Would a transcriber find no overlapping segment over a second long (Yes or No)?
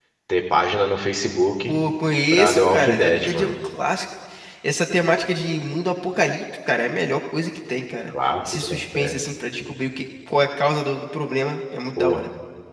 No